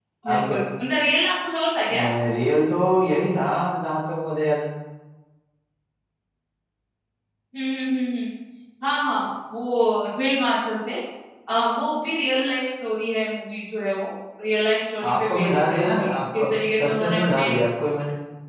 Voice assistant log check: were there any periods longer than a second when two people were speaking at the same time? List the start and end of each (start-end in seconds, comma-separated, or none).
15.0-17.5